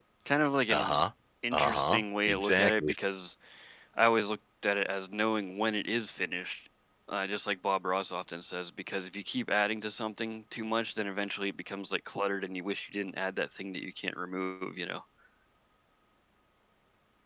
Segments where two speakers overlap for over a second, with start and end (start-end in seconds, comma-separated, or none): 1.5-2.9